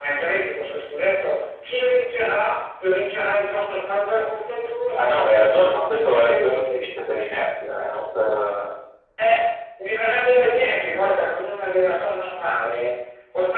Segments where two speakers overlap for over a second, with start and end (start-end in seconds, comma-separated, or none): 5.0-6.8